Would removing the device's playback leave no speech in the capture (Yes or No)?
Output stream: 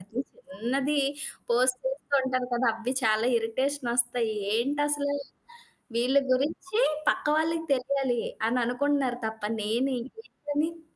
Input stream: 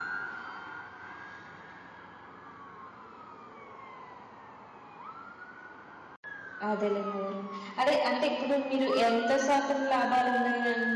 No